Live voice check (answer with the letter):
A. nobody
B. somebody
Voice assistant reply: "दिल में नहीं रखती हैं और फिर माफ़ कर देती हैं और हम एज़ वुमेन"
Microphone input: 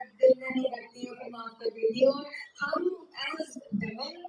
A